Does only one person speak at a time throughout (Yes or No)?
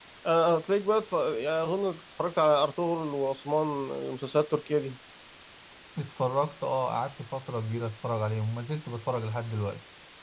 Yes